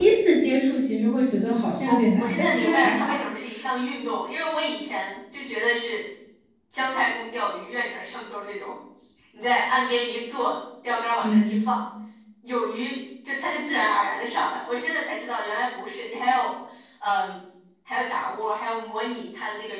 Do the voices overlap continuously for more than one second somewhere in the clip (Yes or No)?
Yes